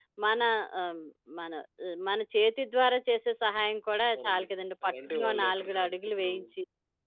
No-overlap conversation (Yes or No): No